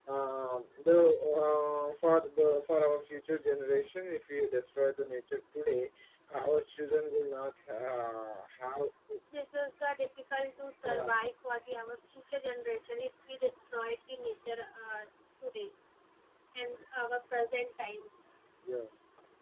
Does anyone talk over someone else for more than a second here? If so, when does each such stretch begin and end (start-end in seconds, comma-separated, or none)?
none